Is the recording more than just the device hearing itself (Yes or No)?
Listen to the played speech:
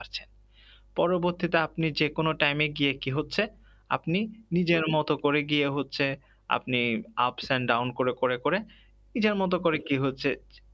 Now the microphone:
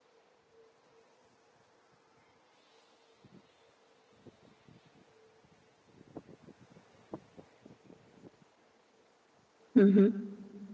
Yes